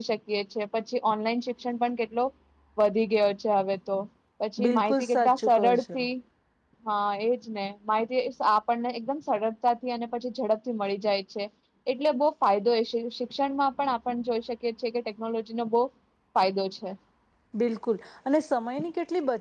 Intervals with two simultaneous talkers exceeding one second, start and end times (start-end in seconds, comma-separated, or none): 4.6-6.0